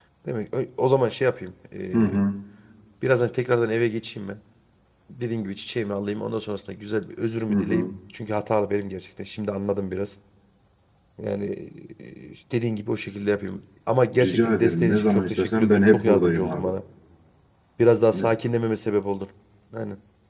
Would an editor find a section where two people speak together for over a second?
Yes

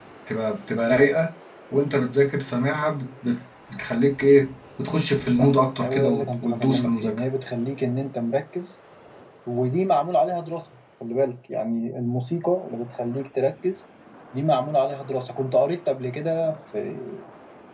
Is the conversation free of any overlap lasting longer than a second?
No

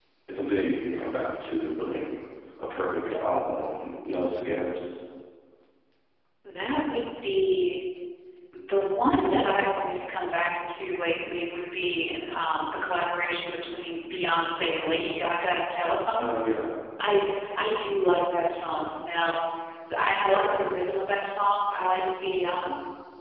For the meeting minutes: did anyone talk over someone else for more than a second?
No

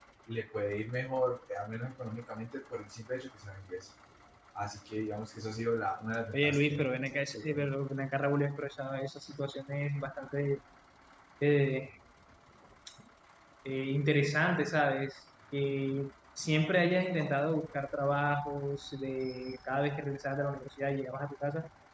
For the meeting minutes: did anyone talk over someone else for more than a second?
No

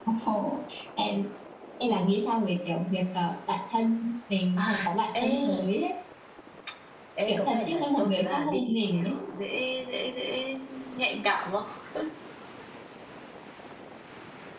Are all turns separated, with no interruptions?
No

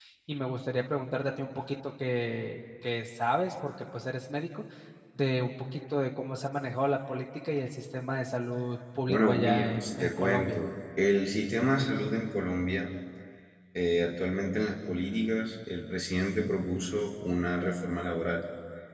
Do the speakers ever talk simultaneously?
Yes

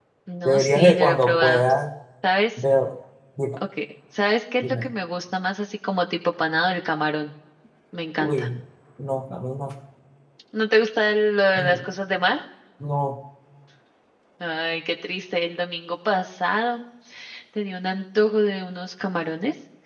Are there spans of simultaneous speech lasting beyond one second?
Yes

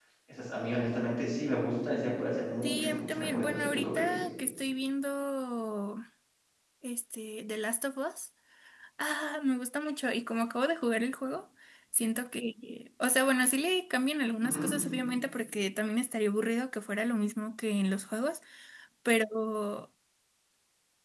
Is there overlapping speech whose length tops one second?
Yes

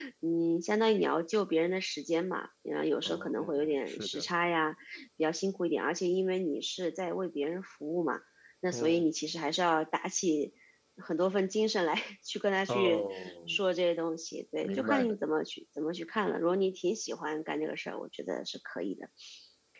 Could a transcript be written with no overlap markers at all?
No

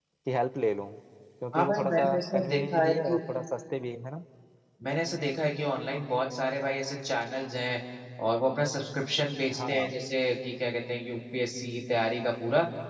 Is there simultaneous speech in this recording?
Yes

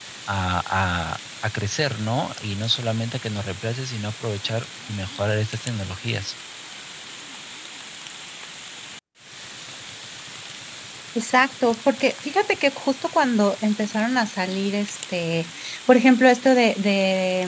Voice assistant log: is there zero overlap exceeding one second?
Yes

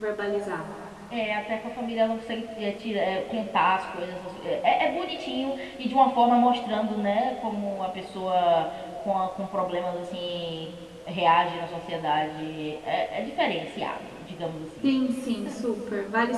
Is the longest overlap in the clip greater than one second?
No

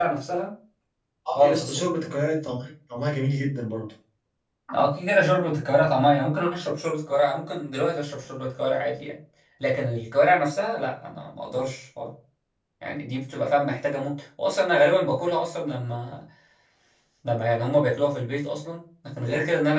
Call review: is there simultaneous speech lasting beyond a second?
No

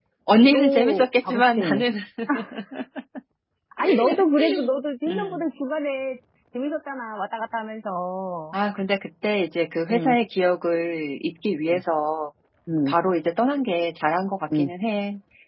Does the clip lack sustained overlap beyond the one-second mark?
No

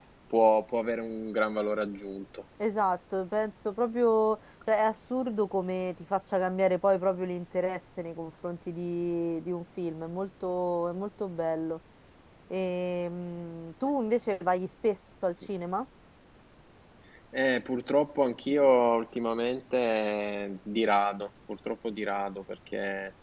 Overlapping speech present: No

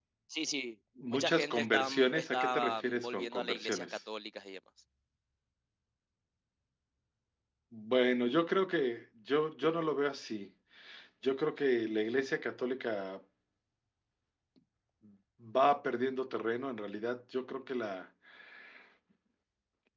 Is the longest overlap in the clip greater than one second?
Yes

